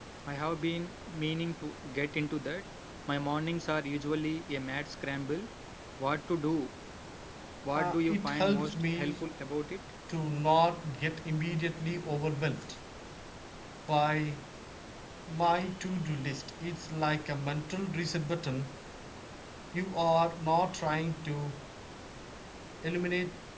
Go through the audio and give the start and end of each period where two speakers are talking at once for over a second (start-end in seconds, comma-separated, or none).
7.7-9.2